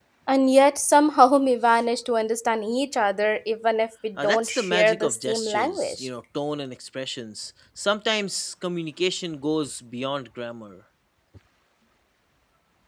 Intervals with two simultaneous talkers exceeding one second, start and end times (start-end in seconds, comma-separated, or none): 4.2-6.1